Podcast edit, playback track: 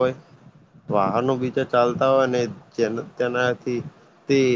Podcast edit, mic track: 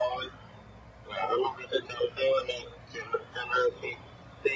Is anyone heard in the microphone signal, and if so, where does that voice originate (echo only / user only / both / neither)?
echo only